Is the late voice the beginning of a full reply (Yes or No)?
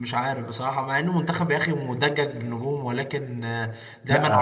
No